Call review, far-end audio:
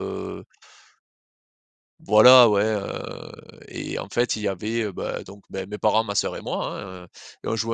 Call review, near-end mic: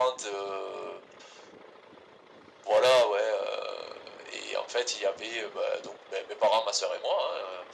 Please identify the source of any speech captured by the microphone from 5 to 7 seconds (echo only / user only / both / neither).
echo only